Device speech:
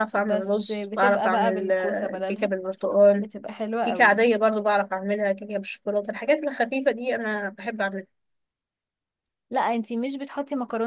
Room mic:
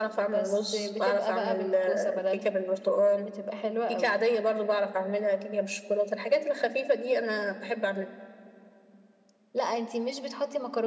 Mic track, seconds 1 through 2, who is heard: echo only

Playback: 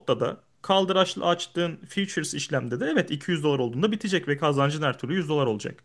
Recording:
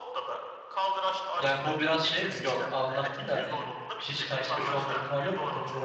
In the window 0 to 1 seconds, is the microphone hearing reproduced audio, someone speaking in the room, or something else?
echo only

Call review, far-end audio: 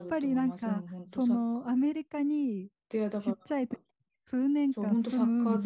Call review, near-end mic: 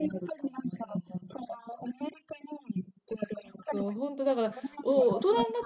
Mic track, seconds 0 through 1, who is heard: echo only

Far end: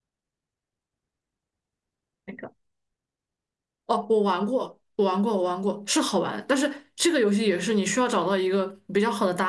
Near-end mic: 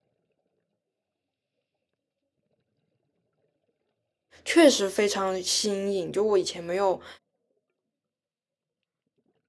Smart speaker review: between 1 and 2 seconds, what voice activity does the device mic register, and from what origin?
neither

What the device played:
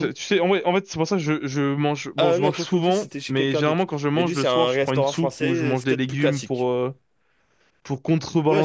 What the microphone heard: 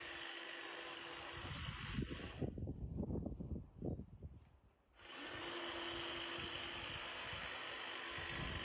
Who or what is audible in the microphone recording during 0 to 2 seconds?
neither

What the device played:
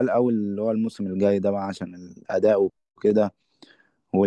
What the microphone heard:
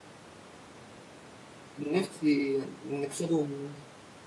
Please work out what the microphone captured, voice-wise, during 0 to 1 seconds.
neither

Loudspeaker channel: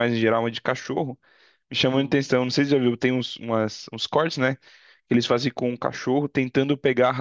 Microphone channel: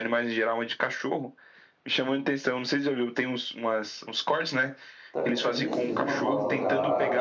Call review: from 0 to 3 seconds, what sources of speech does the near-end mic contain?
echo only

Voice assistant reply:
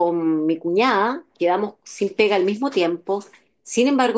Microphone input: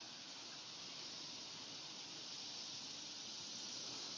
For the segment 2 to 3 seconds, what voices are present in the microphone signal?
neither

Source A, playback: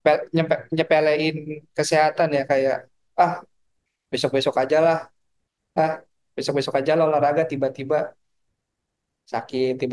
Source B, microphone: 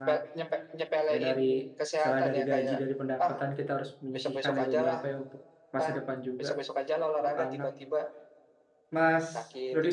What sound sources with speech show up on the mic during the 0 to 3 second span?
both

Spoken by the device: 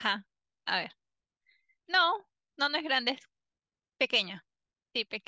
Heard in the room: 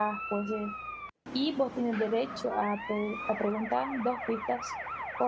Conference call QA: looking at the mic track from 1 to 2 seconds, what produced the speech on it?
user only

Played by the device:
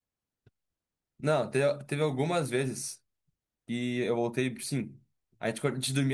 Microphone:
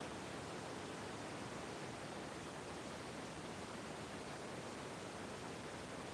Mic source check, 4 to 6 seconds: neither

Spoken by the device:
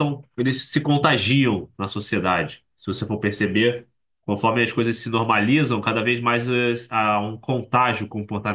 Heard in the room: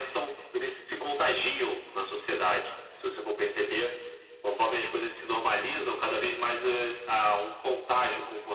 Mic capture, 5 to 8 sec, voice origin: echo only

